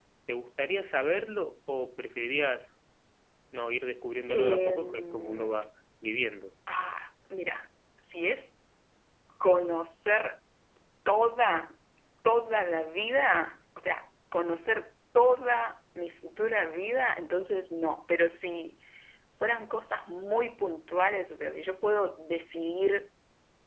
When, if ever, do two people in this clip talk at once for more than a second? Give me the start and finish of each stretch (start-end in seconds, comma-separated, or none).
4.3-5.6